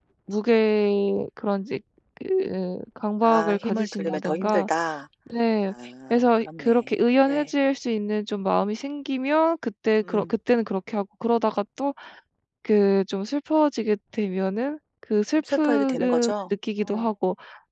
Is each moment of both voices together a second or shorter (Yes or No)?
No